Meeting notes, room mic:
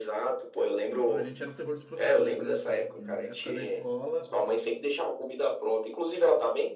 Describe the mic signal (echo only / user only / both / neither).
both